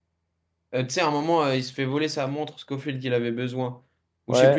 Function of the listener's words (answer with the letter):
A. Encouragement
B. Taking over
B